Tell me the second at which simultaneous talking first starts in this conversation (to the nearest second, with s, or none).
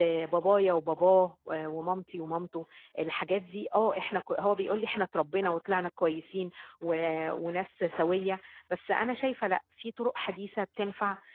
none